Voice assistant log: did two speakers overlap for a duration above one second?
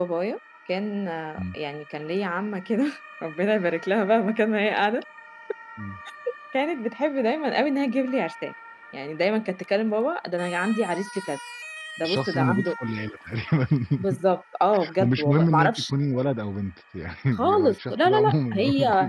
Yes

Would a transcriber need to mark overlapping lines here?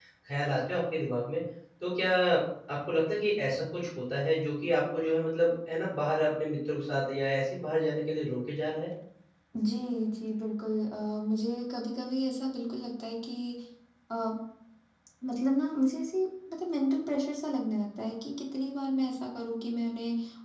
No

